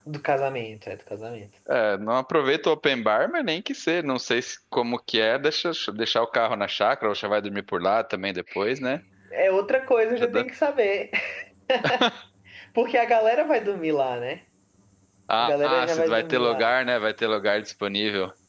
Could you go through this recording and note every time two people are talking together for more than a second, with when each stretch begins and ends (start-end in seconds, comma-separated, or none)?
15.4-16.7